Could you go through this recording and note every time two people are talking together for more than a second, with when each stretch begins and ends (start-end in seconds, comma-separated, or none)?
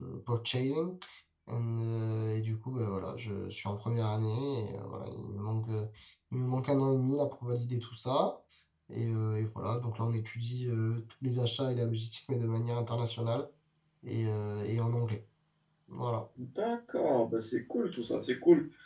none